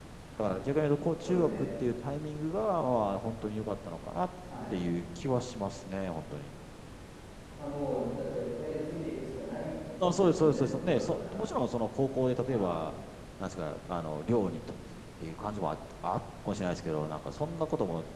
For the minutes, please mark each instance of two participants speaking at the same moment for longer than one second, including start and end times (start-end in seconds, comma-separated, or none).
10.0-11.4